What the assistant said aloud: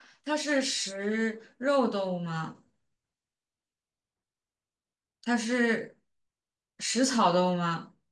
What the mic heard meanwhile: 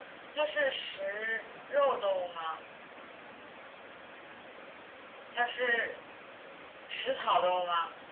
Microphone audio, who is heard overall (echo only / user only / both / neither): echo only